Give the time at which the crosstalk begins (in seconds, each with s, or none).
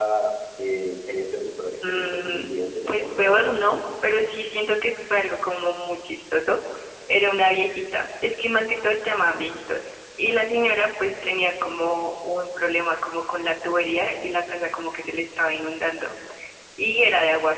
1.8 s